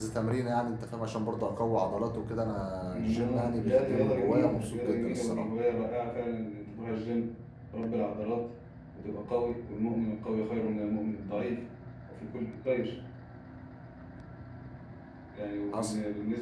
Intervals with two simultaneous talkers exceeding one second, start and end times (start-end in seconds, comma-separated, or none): 2.9-5.5